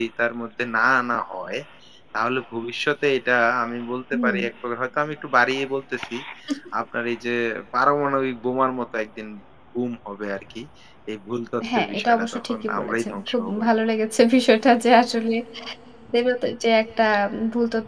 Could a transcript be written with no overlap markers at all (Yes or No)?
No